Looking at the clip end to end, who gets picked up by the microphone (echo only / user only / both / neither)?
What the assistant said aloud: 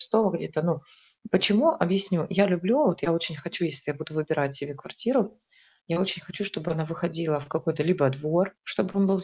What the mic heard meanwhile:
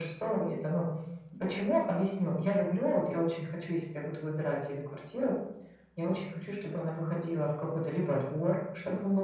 echo only